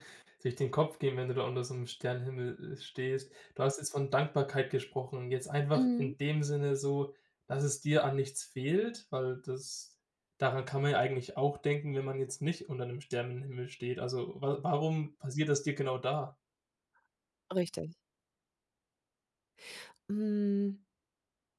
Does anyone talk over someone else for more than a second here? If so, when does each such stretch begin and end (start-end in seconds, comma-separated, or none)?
none